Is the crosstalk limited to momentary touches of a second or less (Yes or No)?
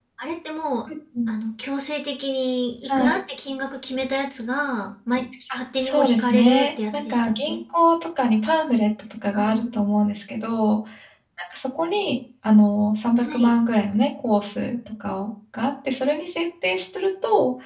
No